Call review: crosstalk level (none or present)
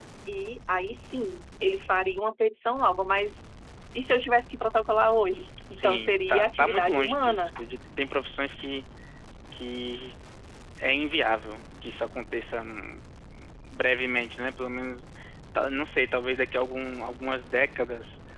present